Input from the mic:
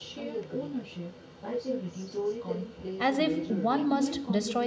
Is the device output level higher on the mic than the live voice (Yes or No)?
No